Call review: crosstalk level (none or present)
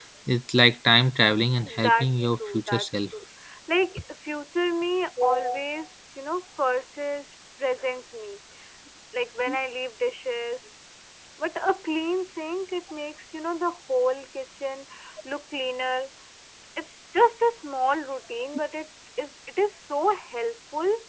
present